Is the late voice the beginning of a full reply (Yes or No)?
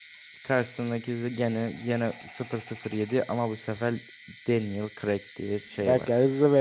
Yes